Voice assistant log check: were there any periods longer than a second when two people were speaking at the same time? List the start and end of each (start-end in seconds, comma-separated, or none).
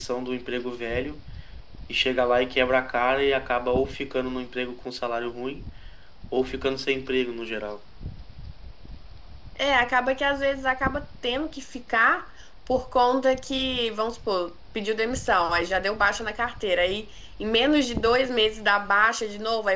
none